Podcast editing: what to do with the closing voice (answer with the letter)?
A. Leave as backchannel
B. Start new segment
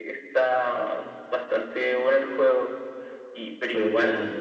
A